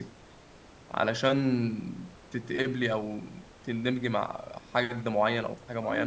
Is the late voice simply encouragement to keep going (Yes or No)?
No